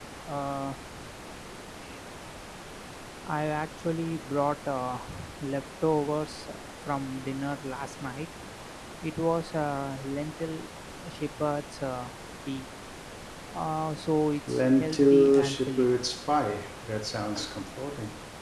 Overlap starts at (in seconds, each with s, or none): 14.5 s